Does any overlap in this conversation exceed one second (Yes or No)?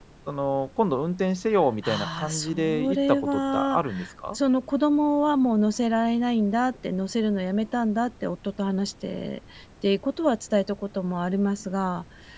Yes